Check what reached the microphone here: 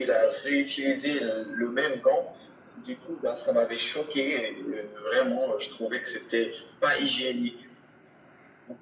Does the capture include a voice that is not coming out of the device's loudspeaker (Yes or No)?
No